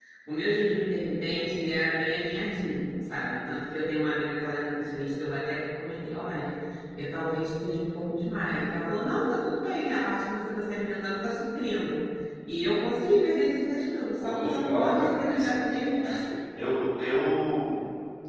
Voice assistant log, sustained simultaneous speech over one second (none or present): present